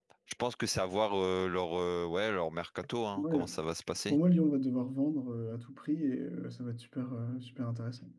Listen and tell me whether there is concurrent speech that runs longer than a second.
No

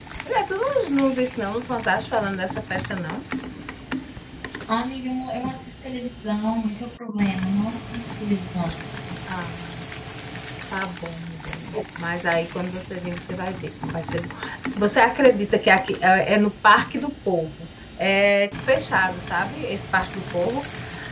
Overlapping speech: No

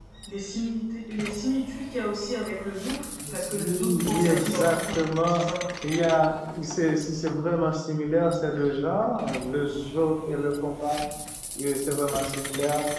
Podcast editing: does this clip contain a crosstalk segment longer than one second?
Yes, from 3.2 s

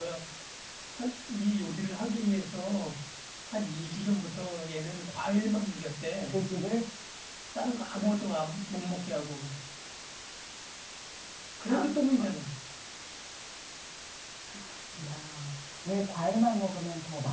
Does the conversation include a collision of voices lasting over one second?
No

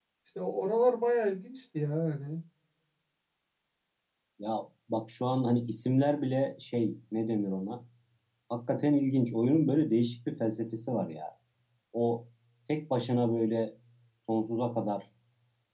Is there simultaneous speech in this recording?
No

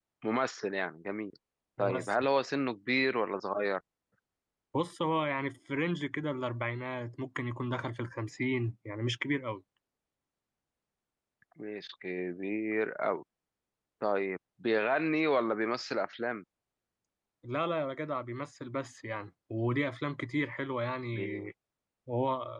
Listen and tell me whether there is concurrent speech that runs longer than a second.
No

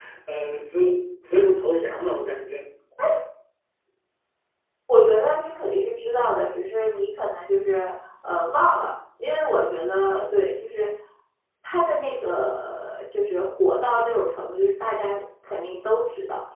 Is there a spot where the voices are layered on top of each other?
No

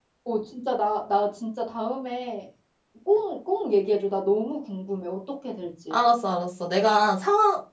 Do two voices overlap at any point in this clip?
No

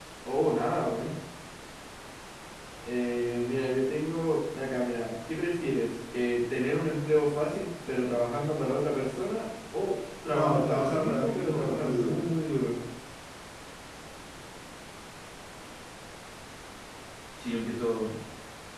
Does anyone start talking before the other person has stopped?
Yes, from 10.3 s

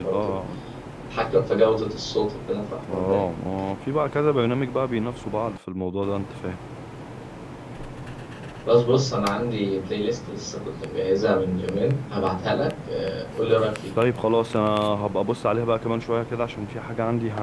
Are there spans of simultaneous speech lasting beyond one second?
No

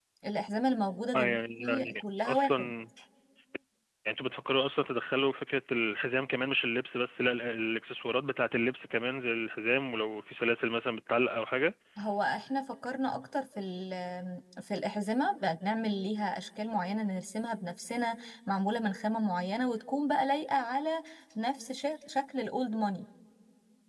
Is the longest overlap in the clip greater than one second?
Yes, from 1.1 s

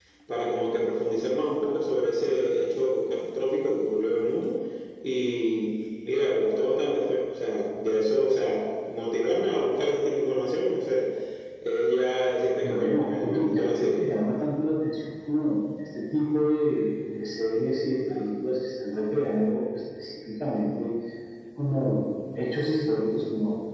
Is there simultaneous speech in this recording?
Yes, from 12.6 s

